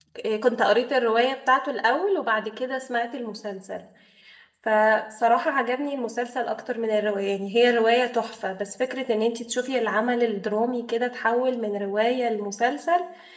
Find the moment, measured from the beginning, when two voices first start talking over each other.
none

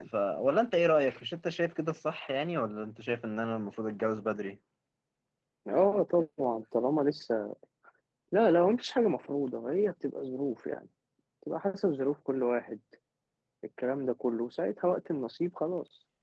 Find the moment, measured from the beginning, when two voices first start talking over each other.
none

